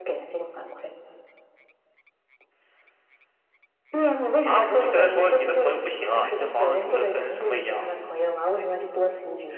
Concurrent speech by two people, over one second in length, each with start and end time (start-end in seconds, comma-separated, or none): 4.5-7.8